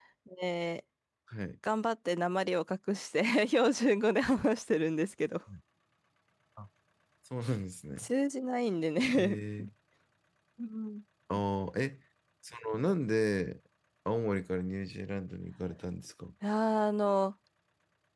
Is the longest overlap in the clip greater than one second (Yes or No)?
No